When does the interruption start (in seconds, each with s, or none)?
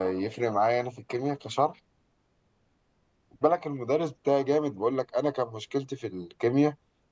none